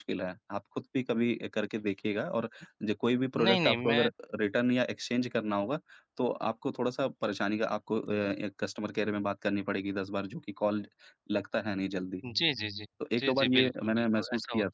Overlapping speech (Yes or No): Yes